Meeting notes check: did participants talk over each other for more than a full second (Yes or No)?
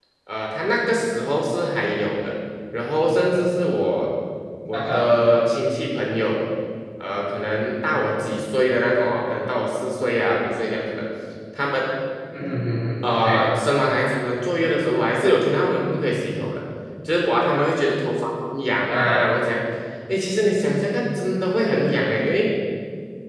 No